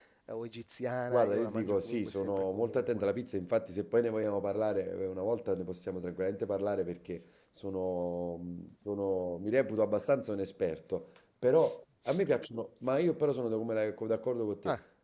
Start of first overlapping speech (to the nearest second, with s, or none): 1 s